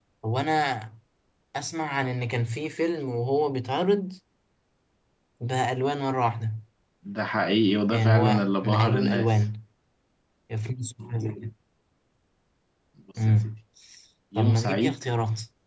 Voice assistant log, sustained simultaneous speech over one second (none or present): present